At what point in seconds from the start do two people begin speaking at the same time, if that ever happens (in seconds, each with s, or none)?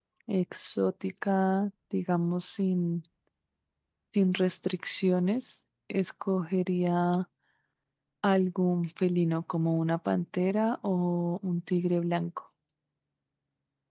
none